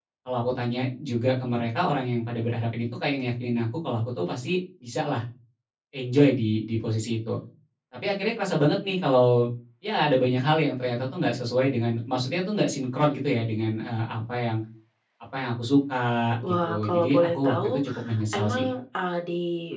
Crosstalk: present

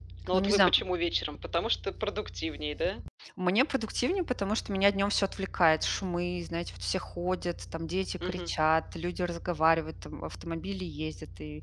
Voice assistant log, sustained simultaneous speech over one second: none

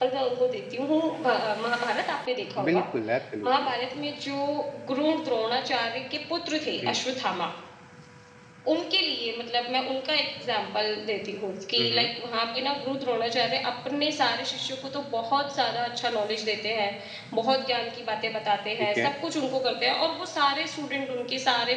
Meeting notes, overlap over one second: none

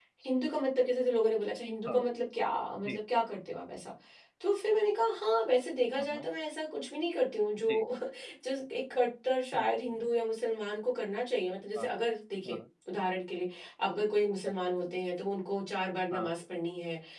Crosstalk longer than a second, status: none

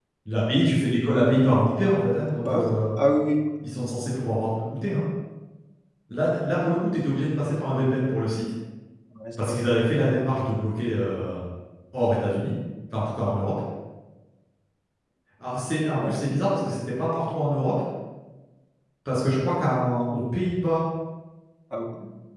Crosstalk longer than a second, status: none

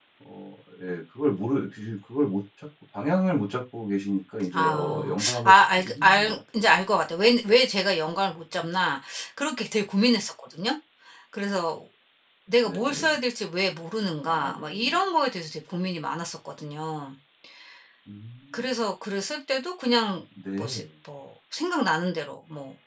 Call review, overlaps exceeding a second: present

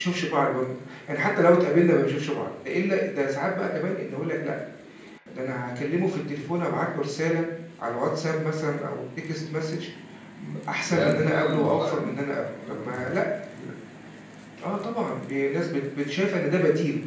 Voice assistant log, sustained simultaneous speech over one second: present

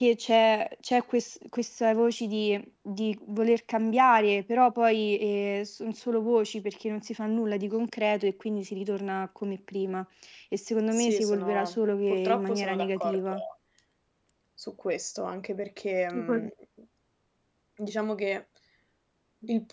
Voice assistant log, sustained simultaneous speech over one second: present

